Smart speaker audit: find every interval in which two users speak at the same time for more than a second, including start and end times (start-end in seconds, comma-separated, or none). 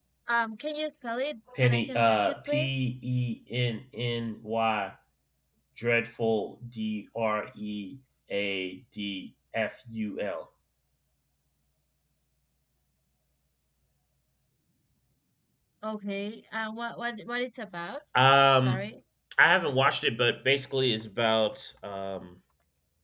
1.6-2.8